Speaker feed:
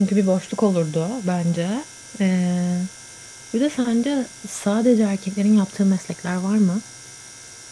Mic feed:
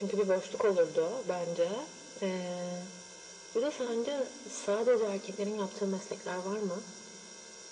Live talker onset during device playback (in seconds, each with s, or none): none